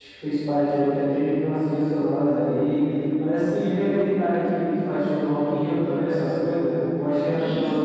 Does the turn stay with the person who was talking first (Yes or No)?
No